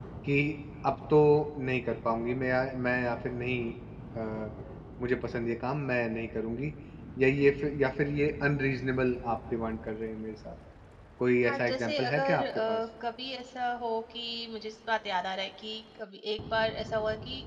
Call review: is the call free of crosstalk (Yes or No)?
No